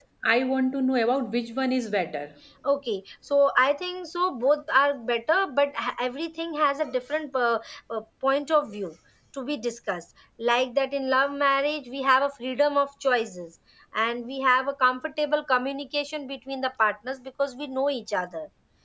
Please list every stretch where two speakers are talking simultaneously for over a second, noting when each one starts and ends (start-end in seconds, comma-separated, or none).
none